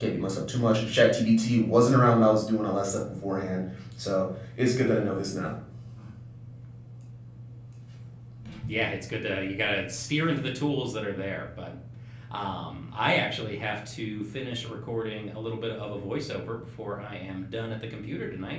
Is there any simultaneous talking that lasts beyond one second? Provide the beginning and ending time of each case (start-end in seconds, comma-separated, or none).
none